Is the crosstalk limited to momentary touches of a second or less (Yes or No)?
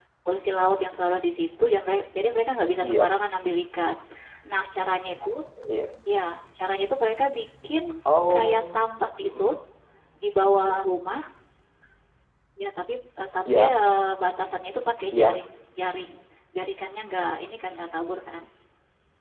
Yes